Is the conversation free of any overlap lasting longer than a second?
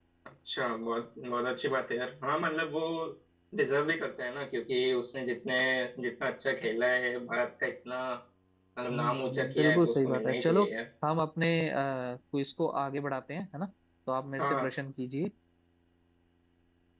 No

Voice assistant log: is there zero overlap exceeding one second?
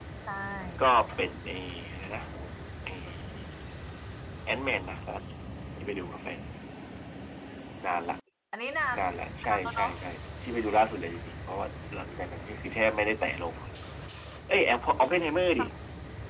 Yes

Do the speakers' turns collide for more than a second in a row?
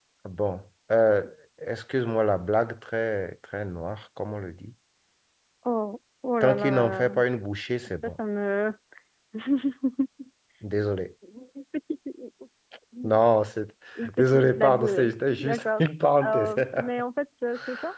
Yes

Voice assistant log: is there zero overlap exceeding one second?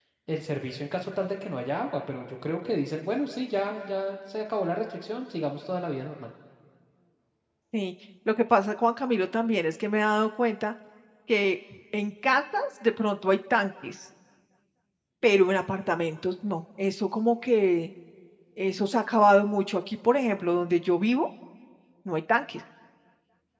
Yes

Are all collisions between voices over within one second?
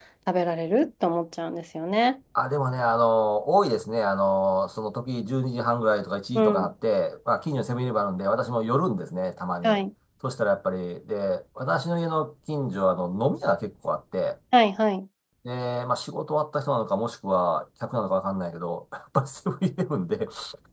Yes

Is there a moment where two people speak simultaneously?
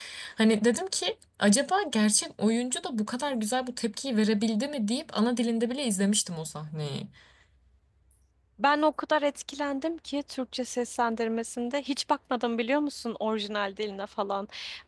No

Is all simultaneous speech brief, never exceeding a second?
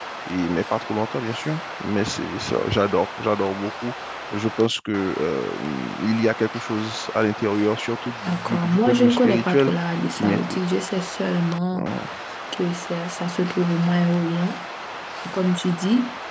No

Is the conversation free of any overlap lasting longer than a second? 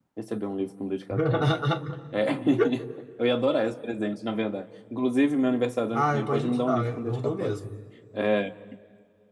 No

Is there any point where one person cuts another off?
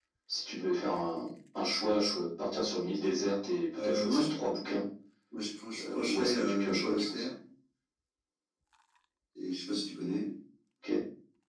Yes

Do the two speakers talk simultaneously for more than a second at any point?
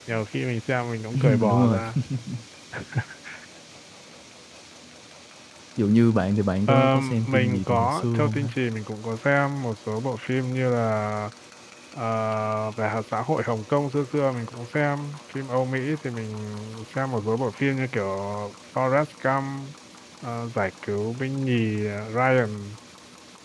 Yes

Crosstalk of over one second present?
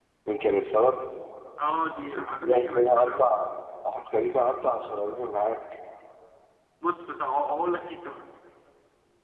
Yes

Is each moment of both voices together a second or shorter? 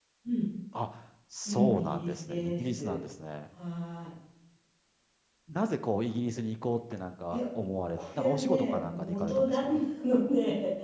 No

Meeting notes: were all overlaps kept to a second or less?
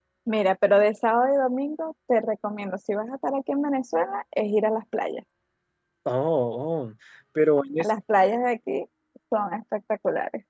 Yes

